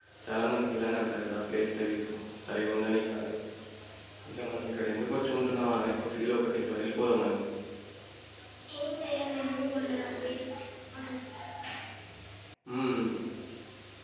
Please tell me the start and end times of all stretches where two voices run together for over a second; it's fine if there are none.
none

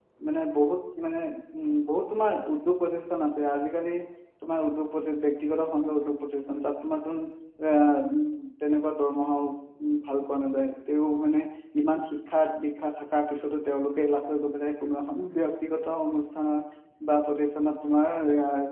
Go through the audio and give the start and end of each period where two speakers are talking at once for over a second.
none

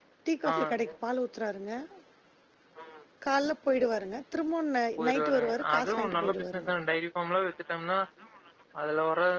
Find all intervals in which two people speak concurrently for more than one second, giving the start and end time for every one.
5.0-6.4

